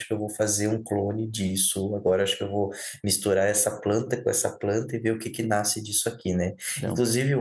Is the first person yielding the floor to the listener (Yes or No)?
No